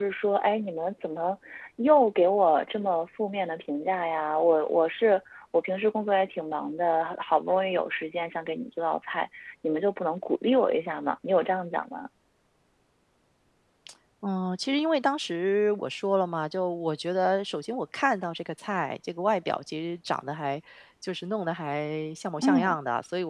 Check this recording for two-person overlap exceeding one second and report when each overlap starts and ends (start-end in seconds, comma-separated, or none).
none